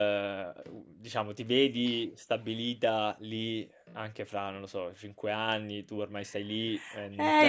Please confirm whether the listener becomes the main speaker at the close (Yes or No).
Yes